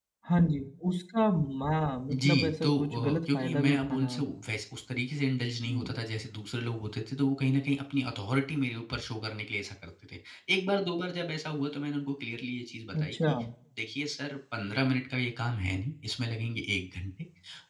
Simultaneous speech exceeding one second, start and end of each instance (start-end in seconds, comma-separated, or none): 2.1-4.1